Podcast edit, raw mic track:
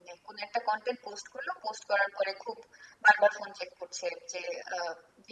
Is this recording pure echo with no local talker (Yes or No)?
Yes